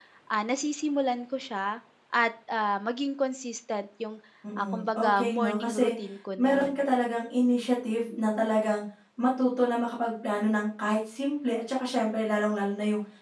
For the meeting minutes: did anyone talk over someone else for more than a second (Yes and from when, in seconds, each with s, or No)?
Yes, from 4.6 s